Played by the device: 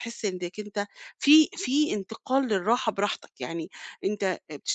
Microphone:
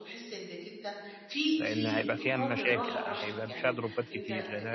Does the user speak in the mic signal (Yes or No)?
Yes